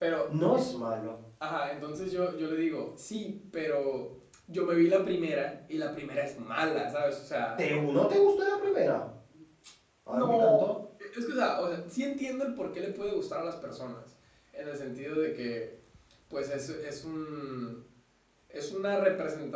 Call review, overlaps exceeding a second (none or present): none